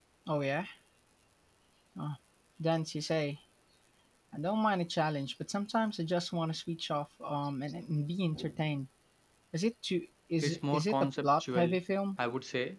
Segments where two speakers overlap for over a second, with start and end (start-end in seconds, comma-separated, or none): 10.4-11.7